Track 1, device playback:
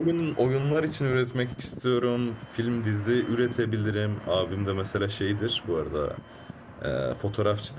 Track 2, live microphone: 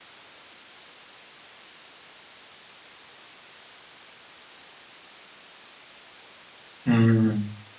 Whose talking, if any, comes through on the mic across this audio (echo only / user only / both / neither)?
user only